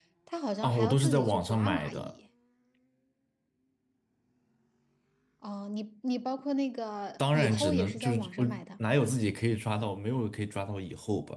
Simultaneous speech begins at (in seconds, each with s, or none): 0.6 s